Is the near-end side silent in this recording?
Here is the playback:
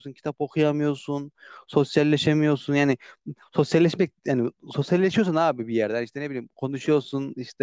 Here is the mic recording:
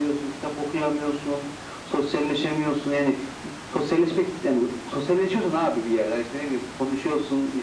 Yes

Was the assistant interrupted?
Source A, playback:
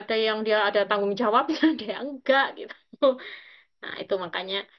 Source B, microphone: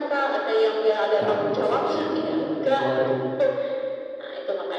Yes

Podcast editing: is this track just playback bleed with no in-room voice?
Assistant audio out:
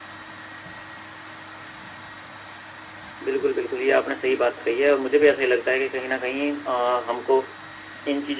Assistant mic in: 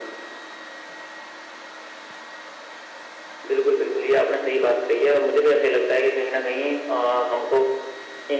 Yes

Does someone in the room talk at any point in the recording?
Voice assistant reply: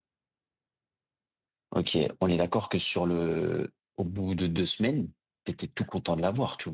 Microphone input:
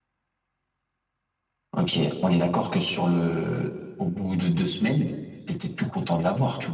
No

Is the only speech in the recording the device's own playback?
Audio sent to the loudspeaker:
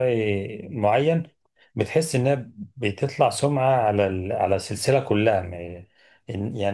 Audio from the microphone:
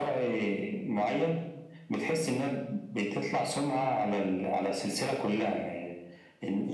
Yes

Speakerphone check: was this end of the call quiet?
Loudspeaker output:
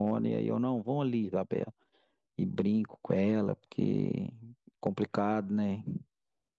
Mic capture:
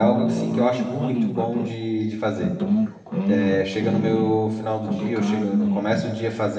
No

